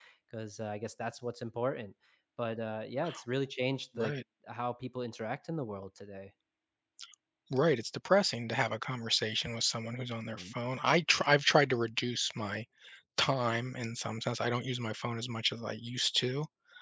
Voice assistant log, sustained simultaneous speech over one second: none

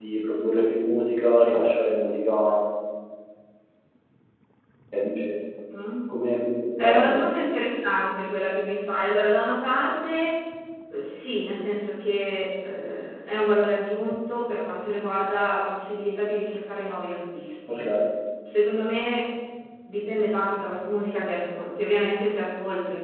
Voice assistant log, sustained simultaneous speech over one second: none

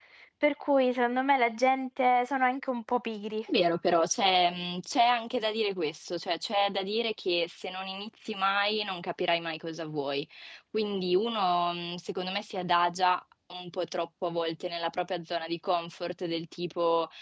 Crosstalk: none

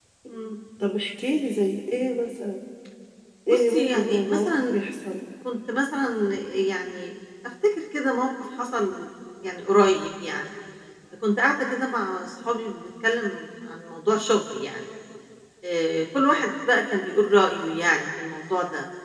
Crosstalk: present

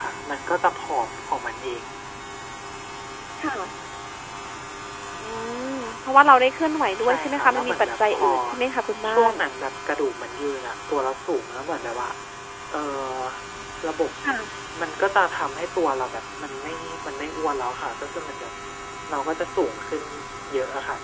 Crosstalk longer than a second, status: present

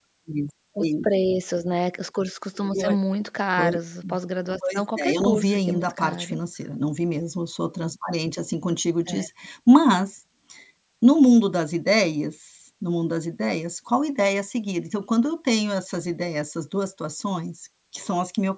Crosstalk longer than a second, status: present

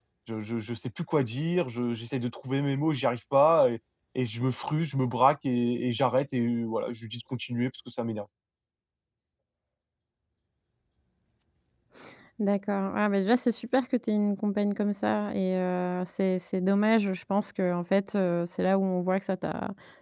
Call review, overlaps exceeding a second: none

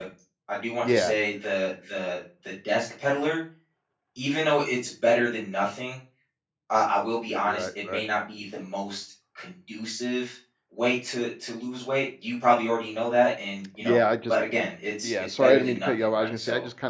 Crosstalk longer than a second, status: present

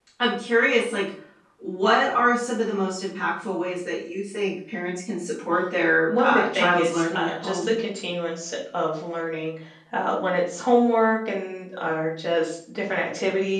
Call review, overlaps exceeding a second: present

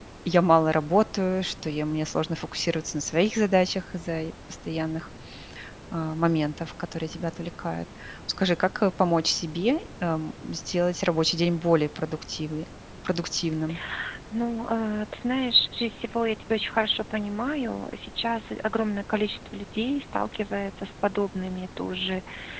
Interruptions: none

